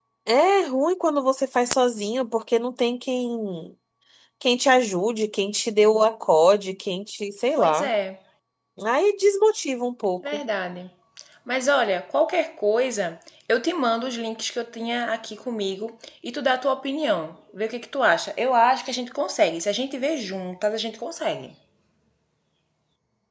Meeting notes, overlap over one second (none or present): none